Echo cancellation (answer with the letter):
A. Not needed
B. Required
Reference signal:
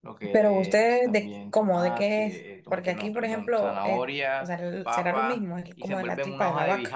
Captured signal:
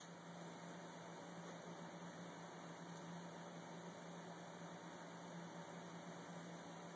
A